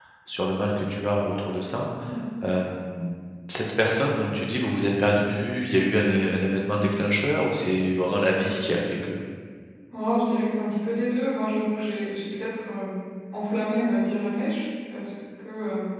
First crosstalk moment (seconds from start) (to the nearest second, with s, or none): none